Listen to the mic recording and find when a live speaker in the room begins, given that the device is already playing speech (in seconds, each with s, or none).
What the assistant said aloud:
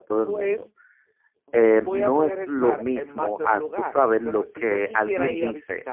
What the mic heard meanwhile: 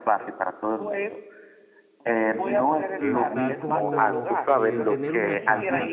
3.0 s